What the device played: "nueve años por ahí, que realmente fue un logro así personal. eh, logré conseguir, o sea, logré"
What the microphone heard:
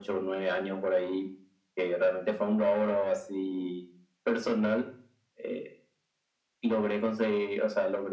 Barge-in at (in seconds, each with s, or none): none